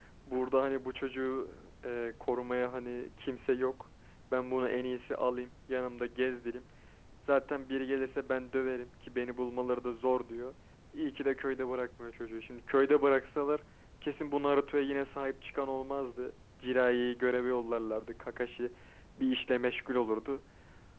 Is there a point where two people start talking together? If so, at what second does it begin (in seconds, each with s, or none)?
none